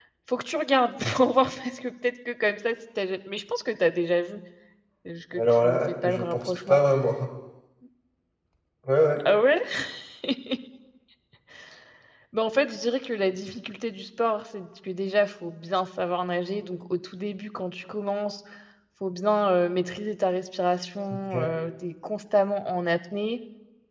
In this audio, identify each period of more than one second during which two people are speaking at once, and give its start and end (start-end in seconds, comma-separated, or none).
5.4-6.8